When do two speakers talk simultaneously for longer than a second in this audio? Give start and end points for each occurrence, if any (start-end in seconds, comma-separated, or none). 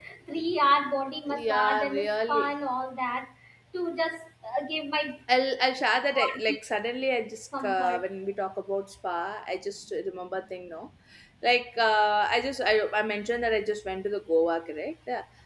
1.3-2.6